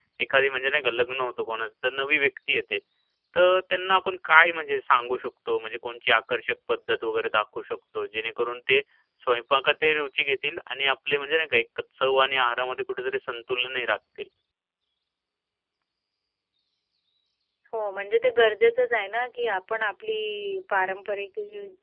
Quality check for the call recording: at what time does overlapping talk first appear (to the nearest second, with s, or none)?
none